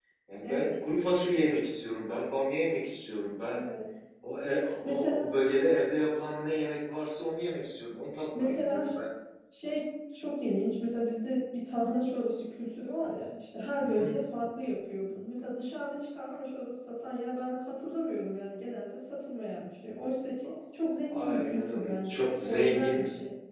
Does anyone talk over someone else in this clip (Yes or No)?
Yes